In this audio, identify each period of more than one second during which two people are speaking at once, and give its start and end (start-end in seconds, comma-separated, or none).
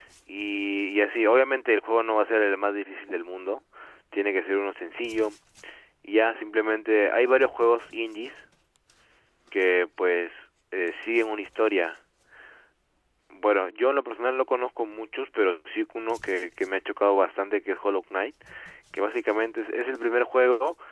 none